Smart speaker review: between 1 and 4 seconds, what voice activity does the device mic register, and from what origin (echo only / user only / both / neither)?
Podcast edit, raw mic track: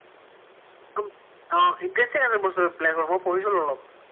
echo only